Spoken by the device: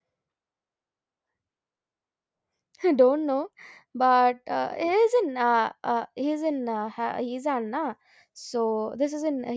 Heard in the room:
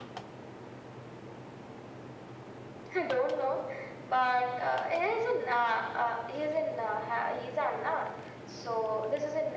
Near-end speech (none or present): none